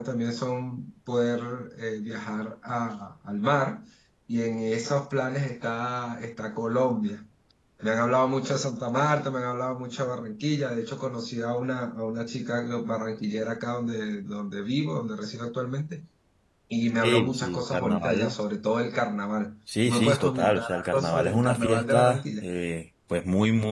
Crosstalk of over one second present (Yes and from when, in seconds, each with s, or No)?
Yes, from 17.0 s